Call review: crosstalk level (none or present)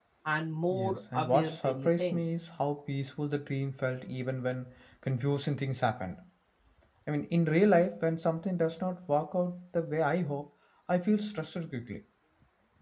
present